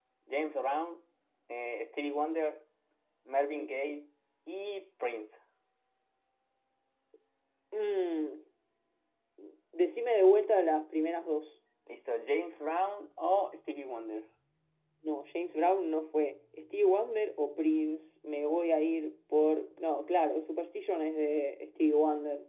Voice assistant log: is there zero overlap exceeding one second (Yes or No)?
Yes